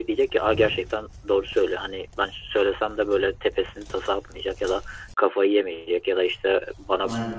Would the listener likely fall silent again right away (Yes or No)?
Yes